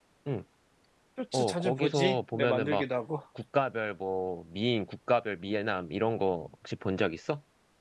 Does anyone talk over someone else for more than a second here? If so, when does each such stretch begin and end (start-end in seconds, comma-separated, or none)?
1.3-2.9